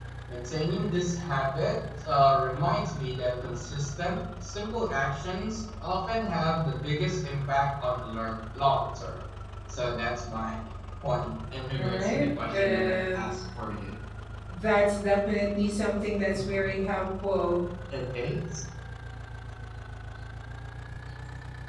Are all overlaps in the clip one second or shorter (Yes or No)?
No